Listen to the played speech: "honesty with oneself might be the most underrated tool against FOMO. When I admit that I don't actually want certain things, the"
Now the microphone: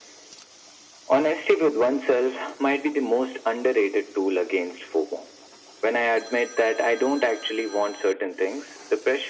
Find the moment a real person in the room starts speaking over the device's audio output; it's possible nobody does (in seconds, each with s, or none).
none